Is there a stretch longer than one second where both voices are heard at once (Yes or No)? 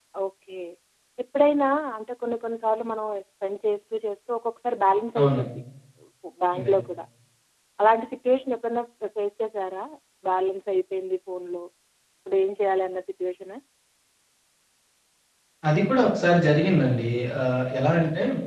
No